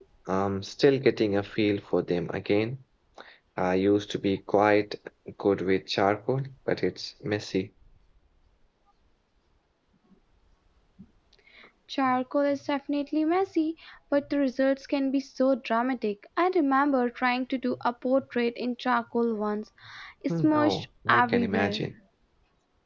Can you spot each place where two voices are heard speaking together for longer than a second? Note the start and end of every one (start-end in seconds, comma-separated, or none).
20.4-21.8